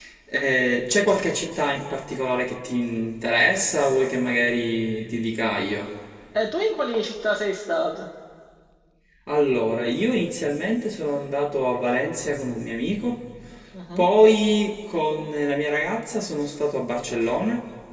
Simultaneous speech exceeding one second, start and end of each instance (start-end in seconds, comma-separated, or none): none